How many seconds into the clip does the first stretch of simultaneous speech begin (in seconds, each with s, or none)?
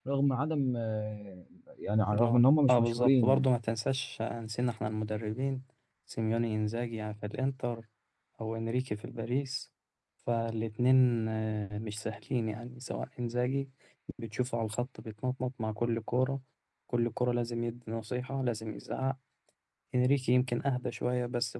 2.1 s